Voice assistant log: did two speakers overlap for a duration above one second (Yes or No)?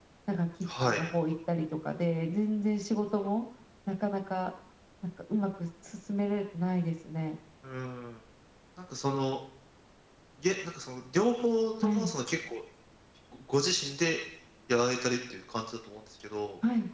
No